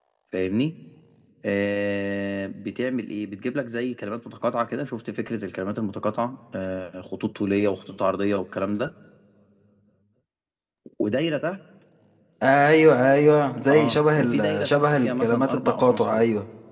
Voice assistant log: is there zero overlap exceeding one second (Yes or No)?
No